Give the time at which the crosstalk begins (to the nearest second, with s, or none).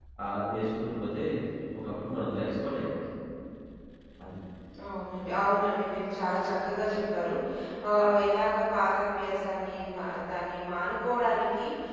none